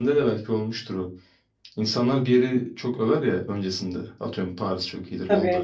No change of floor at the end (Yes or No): Yes